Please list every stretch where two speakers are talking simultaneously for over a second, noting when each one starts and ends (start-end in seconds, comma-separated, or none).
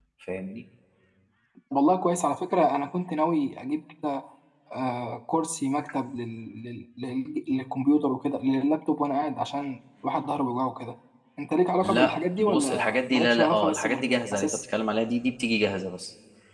11.8-14.6